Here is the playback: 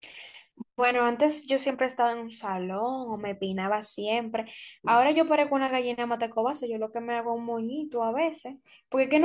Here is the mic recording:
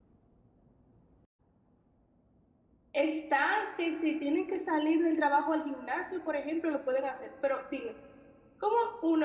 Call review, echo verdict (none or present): none